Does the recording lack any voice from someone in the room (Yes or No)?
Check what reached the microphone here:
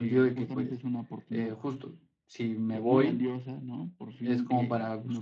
No